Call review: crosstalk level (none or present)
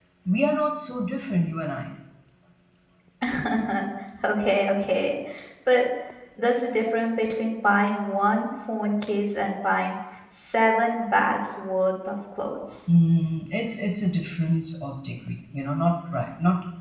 none